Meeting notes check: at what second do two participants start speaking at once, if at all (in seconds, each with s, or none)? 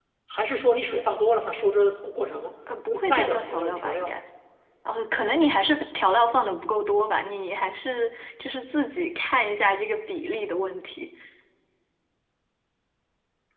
2.9 s